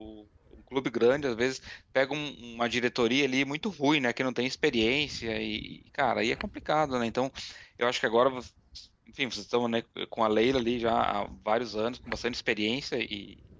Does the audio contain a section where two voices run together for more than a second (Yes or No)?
No